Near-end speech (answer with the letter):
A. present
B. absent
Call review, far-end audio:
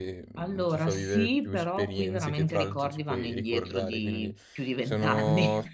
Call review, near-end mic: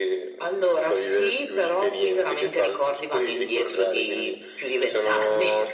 B